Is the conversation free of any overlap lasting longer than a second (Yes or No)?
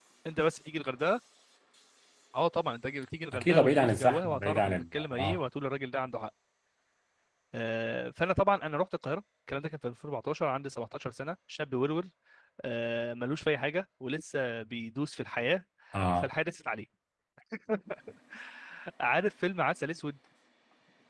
No